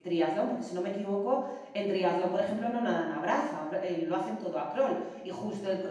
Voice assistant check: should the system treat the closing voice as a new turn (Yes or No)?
No